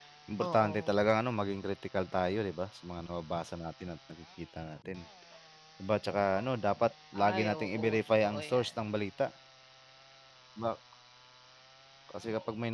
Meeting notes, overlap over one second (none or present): present